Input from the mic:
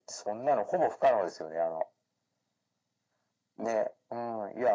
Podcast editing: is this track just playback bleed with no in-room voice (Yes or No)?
Yes